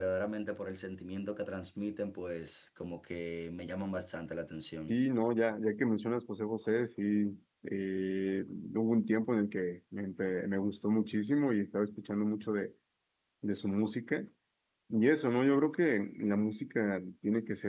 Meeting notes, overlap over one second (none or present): none